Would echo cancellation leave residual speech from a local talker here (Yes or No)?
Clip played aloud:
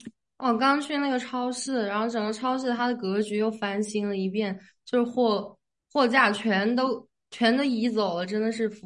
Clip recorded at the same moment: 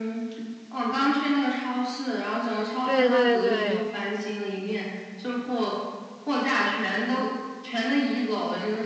Yes